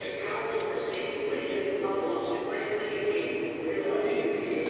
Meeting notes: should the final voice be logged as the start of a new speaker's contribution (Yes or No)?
No